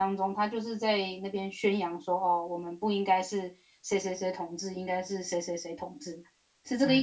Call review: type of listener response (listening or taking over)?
taking over